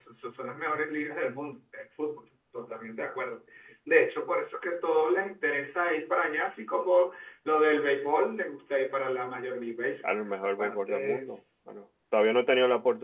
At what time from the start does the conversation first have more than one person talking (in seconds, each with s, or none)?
10.0 s